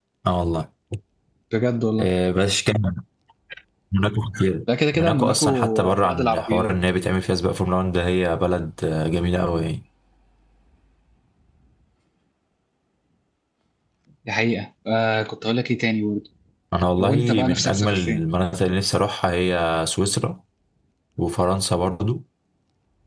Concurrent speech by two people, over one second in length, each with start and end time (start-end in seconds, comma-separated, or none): 4.9-6.7, 17.0-18.2